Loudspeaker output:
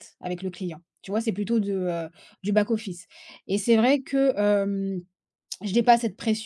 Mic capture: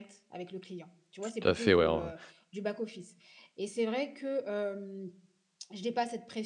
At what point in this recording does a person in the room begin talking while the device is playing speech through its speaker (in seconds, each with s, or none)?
1.2 s